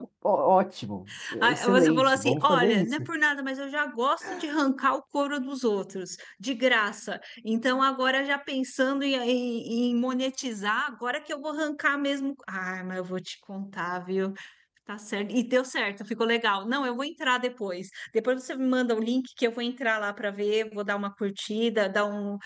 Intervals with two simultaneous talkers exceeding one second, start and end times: 1.5-3.0

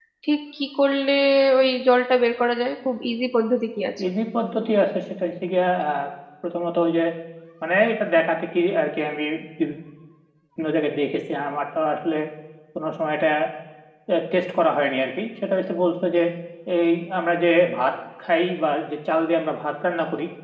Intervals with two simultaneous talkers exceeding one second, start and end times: none

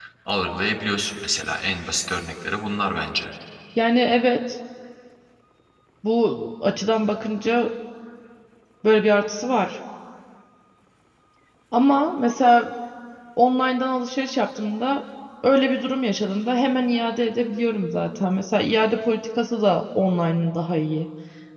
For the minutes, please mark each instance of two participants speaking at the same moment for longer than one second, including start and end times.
none

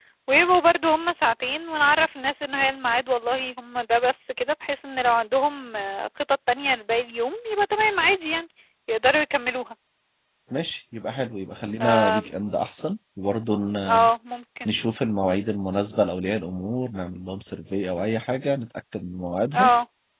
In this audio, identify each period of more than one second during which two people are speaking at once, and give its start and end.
none

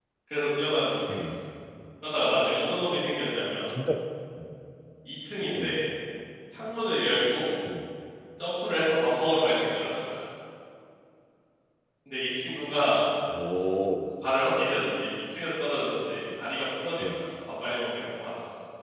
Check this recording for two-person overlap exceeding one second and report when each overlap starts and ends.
none

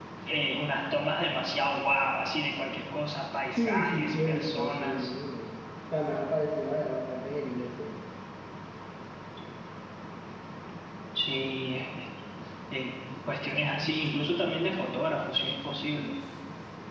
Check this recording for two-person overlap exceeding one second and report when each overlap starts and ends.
3.6-5.1

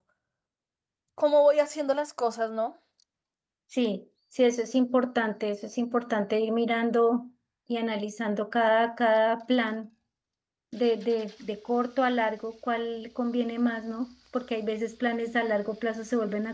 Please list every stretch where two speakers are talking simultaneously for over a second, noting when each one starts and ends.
none

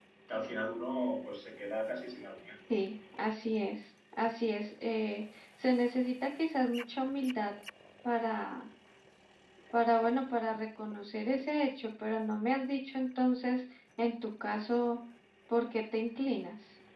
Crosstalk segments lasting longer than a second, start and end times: none

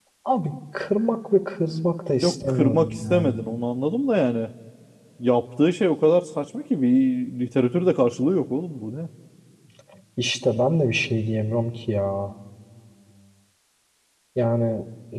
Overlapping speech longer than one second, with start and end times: 2.2-3.5

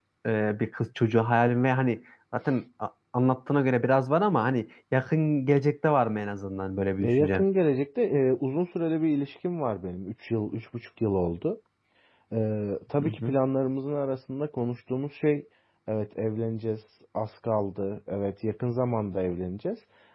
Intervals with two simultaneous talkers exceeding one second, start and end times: none

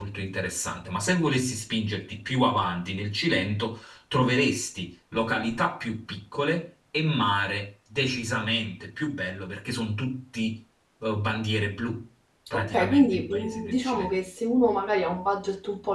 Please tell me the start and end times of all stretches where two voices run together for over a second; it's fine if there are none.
12.5-14.1

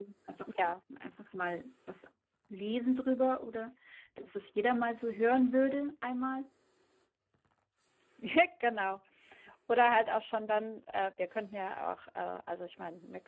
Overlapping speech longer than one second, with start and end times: none

